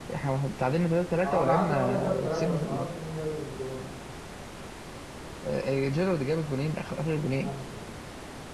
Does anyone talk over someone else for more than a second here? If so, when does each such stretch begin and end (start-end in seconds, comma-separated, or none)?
1.2-3.0